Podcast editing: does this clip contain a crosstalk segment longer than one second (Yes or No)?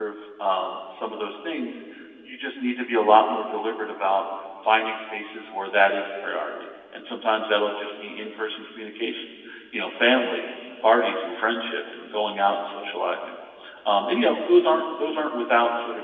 No